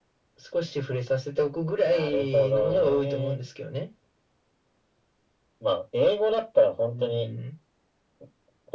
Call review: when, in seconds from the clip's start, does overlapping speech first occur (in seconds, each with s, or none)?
1.8 s